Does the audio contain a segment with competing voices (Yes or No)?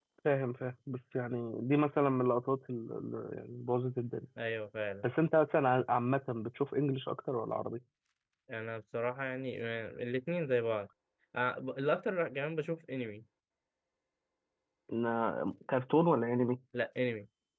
No